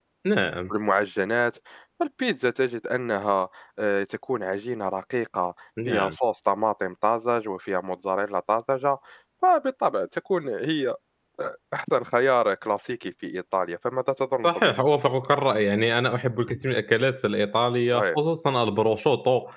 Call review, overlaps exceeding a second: none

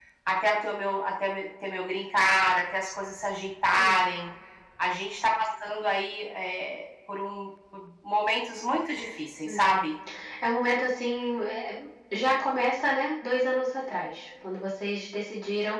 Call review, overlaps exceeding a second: none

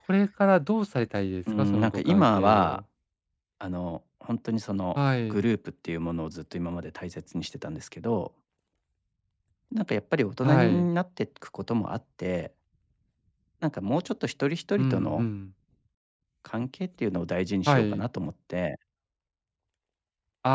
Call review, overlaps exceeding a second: present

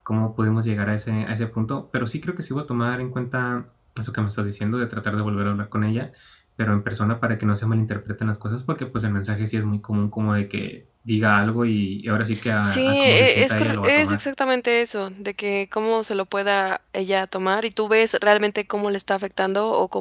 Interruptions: present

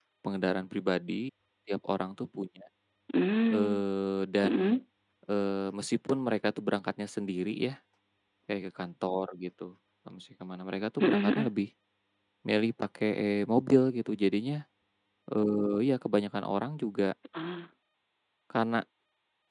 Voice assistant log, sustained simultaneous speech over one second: none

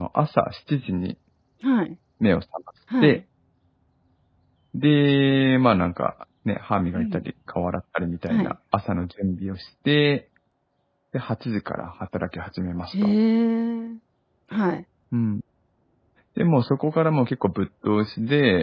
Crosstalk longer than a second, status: none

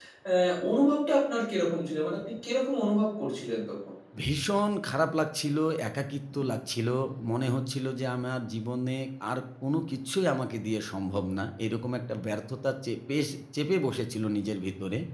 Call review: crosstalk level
none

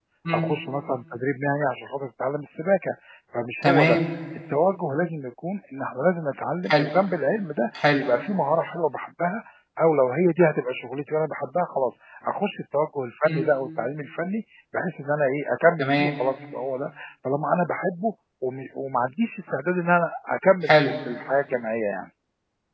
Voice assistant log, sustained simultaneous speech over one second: none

